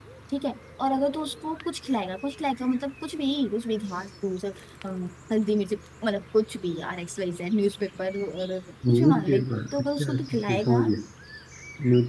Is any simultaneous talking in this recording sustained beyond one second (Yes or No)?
Yes